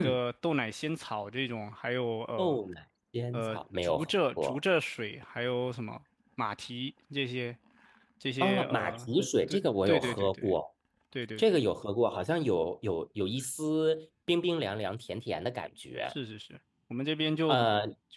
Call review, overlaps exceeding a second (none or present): present